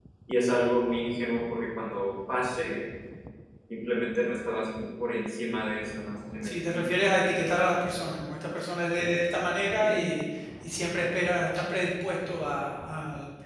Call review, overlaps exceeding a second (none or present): none